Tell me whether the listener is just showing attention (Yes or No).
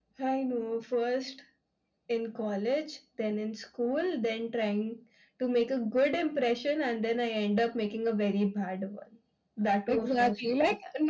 No